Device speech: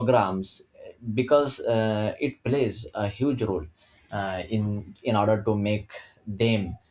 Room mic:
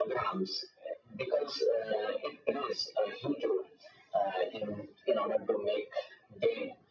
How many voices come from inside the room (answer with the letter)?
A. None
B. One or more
A